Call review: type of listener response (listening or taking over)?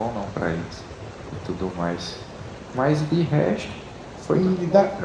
taking over